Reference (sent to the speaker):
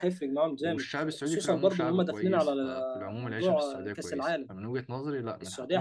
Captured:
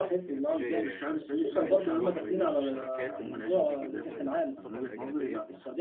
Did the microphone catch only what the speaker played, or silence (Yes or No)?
No